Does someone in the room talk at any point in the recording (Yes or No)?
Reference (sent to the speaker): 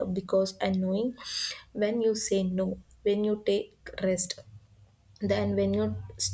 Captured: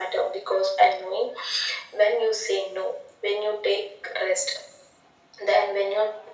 No